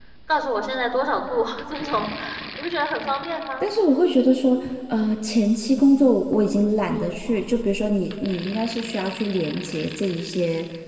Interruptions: none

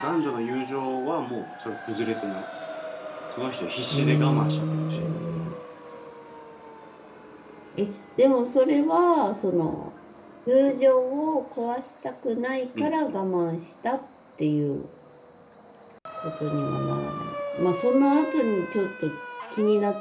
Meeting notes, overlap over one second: present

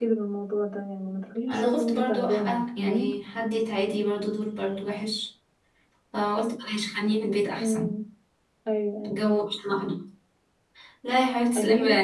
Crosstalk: present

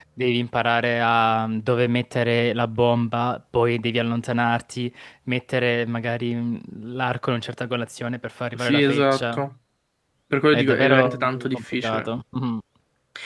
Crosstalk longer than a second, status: present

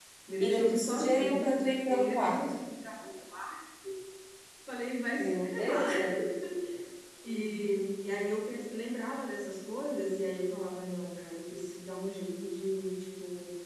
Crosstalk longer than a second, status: present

